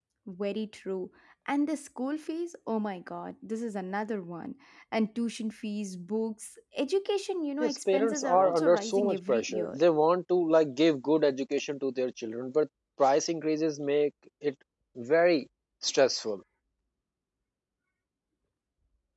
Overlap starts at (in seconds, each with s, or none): 7.6 s